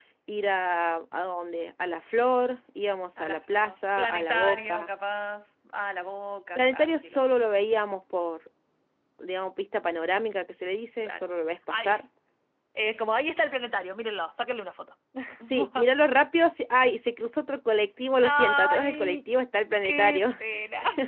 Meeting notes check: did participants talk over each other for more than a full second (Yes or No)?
Yes